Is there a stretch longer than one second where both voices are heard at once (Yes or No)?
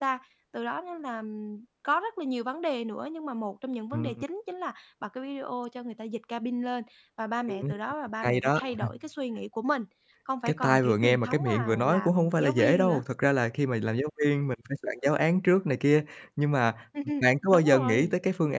Yes